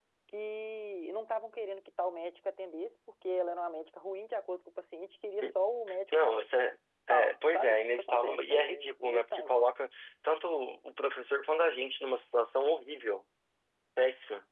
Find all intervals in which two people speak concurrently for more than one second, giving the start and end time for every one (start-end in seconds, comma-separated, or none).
7.1-9.5